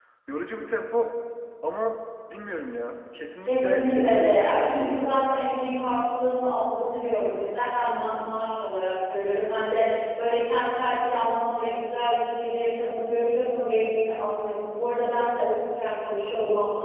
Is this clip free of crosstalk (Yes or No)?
No